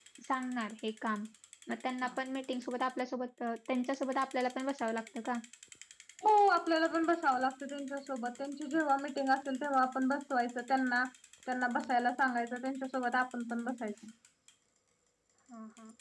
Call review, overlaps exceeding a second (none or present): none